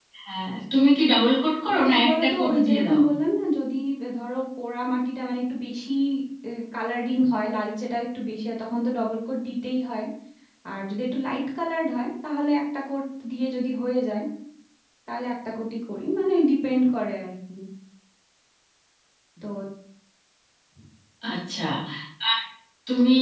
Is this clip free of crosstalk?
No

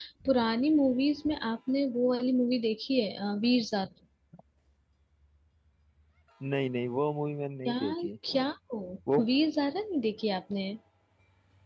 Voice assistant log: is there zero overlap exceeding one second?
Yes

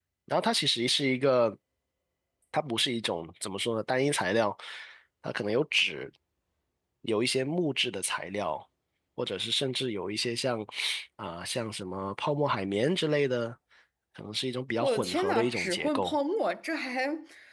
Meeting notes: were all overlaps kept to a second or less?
No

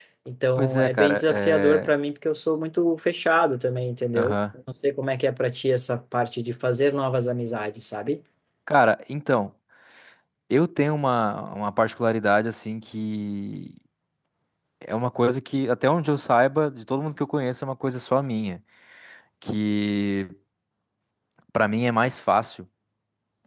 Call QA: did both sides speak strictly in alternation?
No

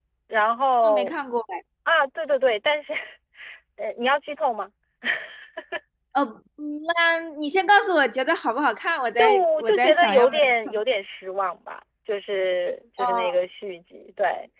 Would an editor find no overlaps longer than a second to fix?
No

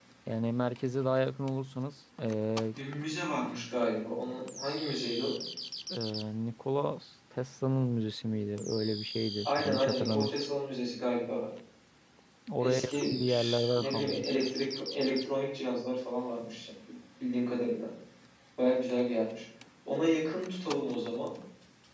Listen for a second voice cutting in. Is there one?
Yes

